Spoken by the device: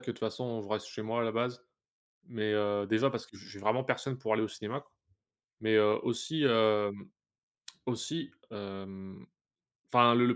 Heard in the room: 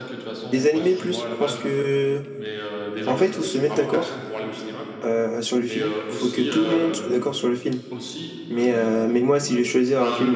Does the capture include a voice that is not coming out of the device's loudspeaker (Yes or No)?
Yes